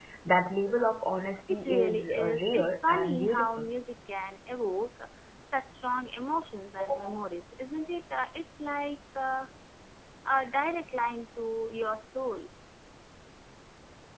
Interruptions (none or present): present